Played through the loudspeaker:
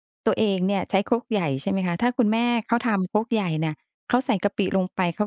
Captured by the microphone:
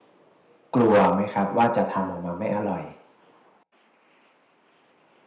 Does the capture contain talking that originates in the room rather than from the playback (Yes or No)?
Yes